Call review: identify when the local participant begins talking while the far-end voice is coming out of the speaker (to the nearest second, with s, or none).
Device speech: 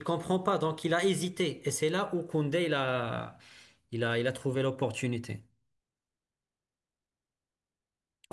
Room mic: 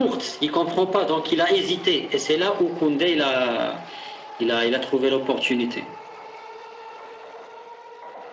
none